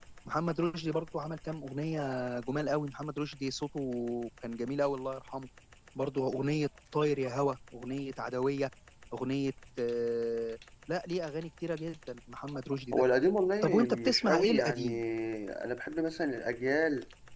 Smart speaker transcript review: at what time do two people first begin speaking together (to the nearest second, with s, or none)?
14 s